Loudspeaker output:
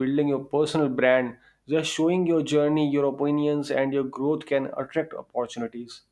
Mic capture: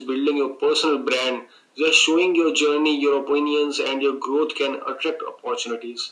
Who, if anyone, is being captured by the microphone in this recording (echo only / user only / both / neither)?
echo only